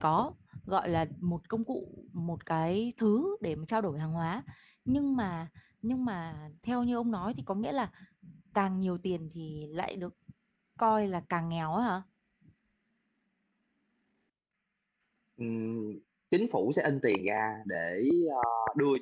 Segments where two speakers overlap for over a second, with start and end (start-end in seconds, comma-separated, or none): none